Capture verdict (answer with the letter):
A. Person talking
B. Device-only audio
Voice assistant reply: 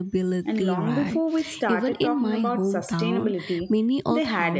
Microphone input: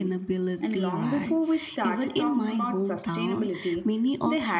B